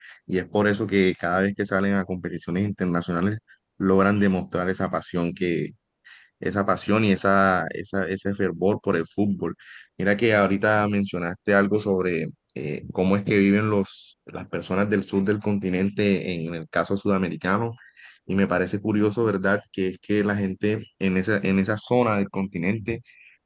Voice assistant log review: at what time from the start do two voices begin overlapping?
none

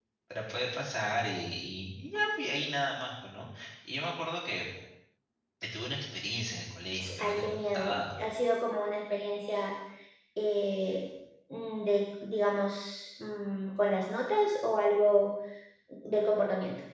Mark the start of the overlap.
7.0 s

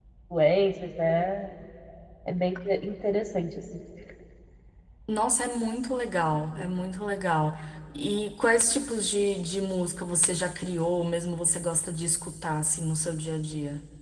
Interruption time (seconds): none

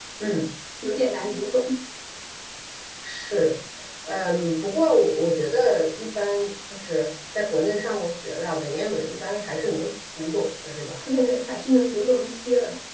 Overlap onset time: none

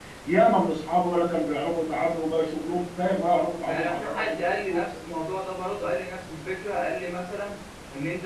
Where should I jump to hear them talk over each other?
3.6 s

